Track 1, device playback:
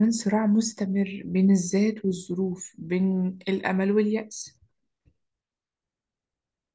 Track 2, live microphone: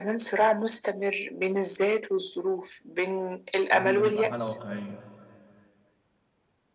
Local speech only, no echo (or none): قبل ما تبقى حالة واقعية